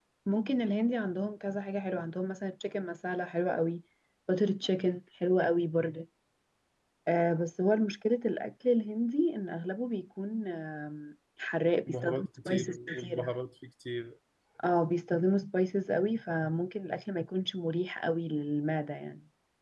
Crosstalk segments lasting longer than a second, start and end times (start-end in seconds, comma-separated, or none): 11.9-13.3